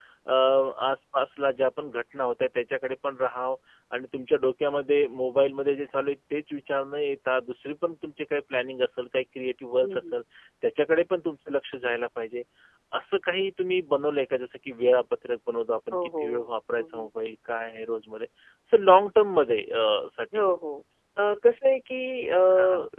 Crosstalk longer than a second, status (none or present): none